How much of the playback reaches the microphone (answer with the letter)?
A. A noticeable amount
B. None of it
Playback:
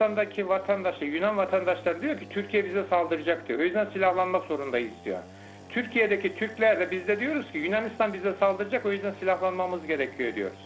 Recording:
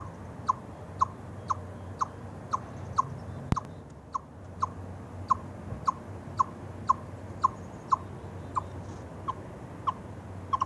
B